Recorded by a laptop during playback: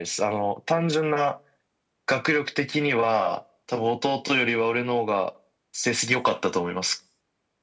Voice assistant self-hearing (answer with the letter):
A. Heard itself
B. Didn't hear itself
A